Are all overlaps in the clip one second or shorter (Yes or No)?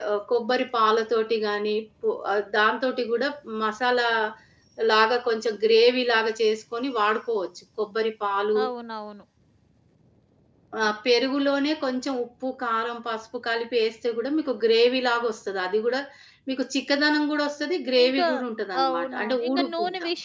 No